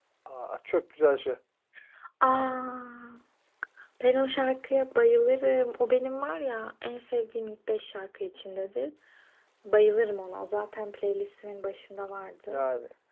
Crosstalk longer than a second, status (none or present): none